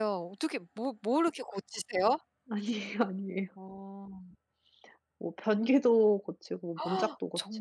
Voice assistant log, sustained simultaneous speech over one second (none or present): none